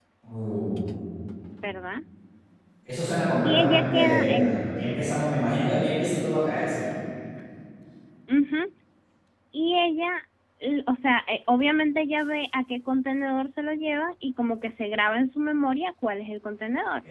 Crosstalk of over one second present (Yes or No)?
Yes